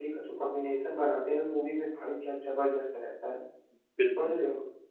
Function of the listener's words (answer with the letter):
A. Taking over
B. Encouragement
A